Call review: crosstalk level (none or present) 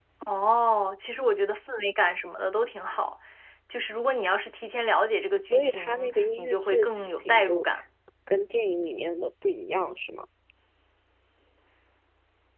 present